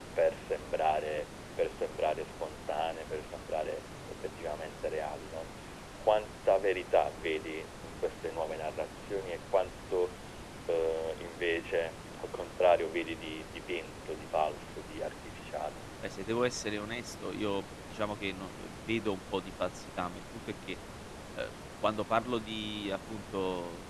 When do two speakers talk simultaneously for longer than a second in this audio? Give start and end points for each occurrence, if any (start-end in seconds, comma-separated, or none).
none